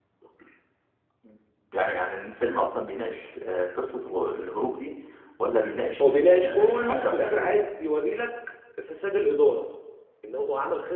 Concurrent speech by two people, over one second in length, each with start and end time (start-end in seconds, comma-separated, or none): 6.0-7.6